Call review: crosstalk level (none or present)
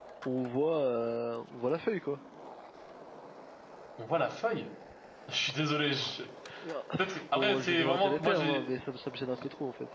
present